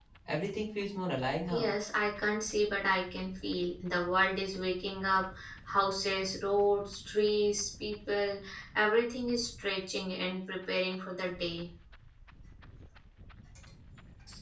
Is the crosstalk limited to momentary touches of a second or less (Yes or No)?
Yes